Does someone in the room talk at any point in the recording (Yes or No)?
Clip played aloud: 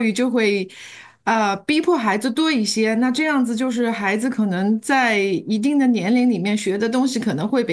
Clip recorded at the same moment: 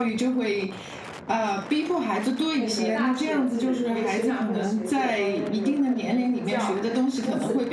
Yes